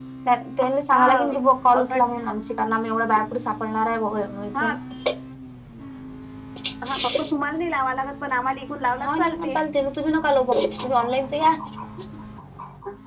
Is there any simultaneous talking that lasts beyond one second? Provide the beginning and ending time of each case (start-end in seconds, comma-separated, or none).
none